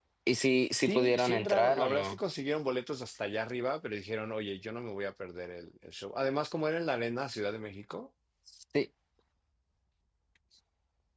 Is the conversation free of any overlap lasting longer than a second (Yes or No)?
No